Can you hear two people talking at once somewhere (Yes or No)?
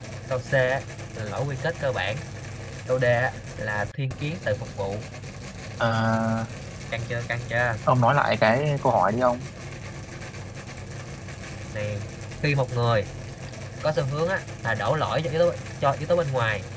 No